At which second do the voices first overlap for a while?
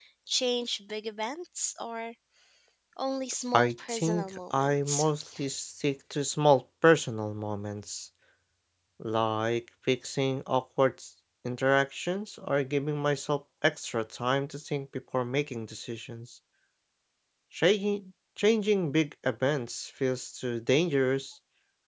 4 s

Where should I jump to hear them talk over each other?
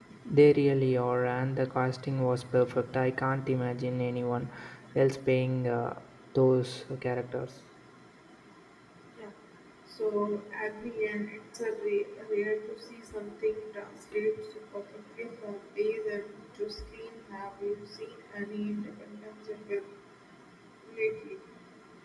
none

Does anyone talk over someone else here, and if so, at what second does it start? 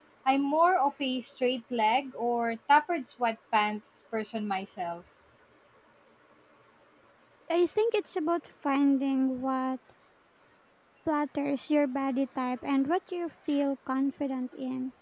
none

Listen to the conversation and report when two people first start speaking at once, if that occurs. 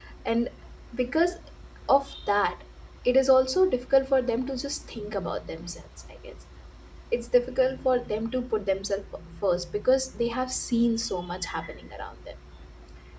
none

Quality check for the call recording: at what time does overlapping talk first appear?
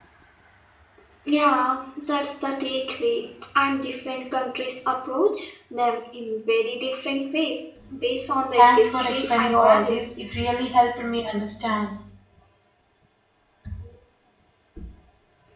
9 s

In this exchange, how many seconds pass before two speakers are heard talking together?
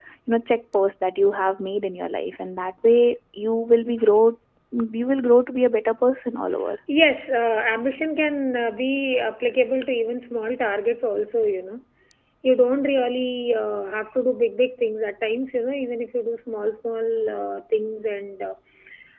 none

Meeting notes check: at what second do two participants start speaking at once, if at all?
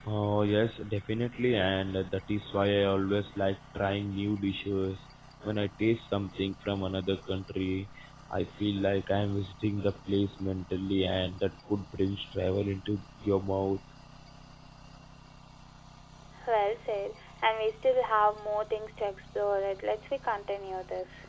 none

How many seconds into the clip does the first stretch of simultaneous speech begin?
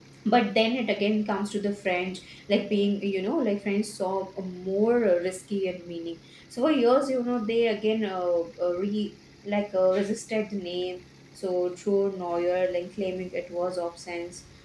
none

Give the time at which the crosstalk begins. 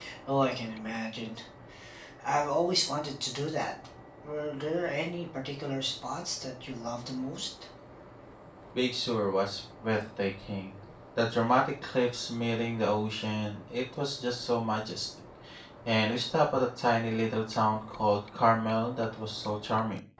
none

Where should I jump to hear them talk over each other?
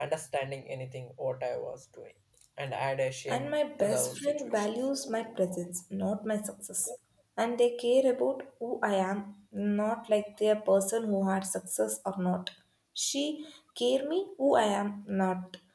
3 s

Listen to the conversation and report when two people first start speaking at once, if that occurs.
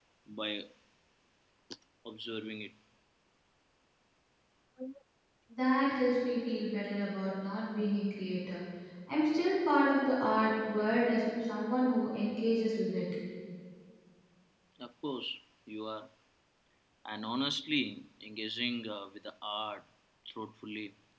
none

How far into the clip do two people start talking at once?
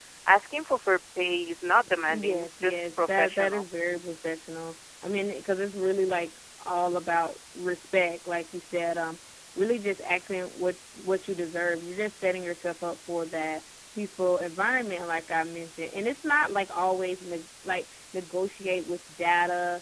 2 s

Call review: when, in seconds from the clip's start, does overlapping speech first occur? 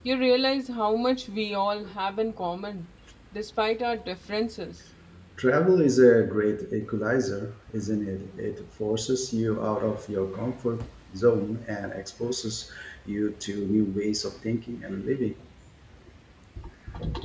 none

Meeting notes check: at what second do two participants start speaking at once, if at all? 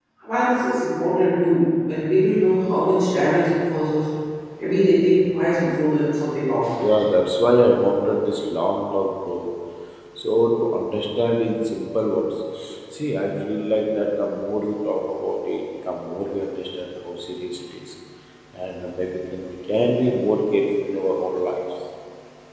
none

